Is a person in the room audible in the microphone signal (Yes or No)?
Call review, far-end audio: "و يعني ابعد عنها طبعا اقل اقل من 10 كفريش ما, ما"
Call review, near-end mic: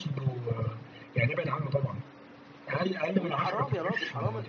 Yes